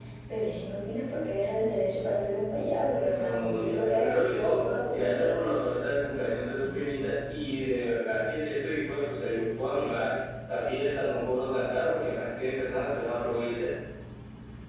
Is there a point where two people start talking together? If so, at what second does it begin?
3 s

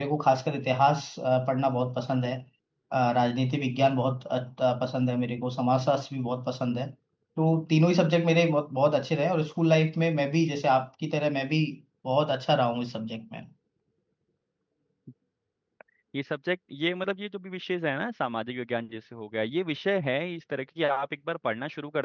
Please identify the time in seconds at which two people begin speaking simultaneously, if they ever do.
none

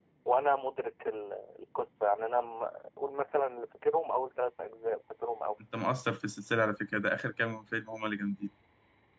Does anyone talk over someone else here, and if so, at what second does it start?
none

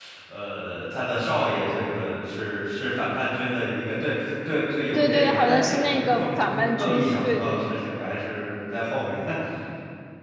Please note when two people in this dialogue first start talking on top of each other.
5 s

